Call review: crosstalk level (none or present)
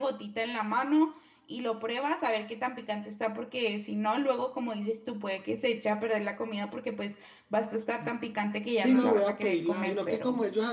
present